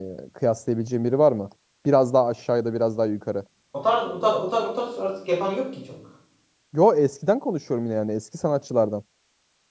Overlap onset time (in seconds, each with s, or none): none